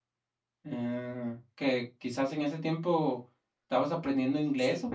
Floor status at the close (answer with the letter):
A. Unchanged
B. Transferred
B